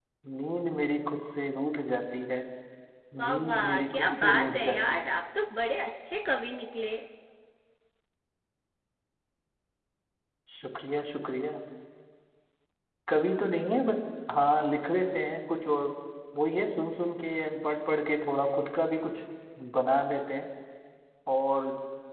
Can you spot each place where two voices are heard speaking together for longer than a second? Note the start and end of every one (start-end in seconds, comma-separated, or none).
3.2-5.0